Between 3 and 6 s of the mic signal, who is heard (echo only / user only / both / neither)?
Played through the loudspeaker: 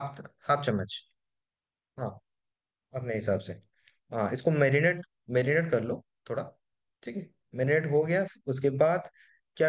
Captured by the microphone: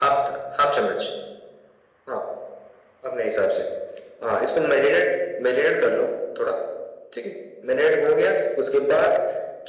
echo only